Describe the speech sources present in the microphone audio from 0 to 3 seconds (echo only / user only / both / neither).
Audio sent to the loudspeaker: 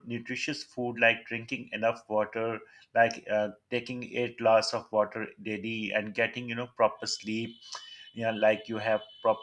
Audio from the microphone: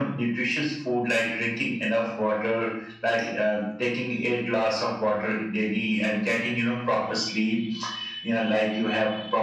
echo only